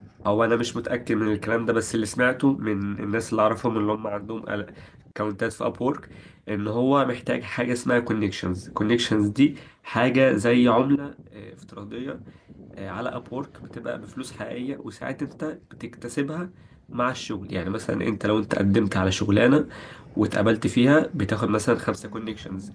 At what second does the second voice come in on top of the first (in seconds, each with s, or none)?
none